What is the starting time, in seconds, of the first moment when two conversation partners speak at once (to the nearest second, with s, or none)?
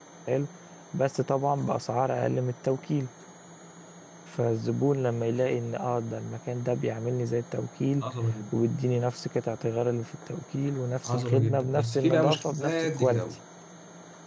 11 s